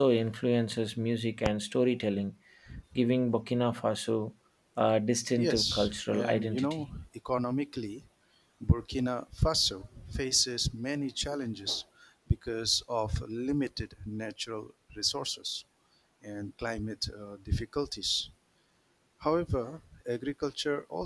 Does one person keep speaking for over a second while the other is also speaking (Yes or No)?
Yes